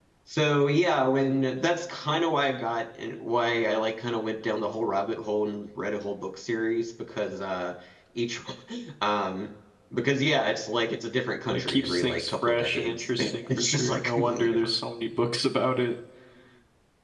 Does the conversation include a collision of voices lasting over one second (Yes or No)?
Yes